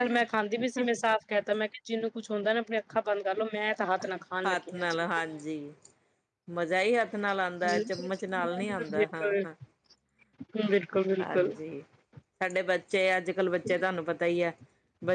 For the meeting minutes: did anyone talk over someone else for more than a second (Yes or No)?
Yes